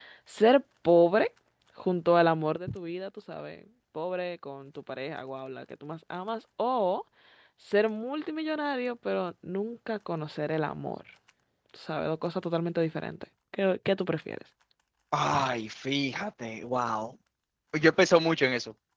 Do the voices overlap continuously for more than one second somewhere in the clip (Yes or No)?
No